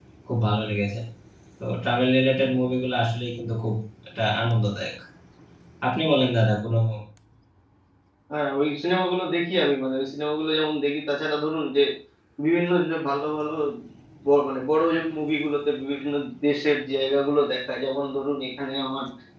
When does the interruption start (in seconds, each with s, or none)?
none